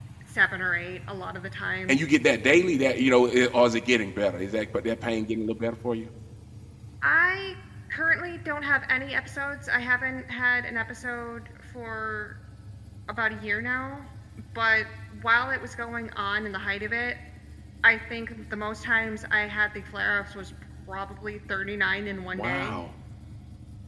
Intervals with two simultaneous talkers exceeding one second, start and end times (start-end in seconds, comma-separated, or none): none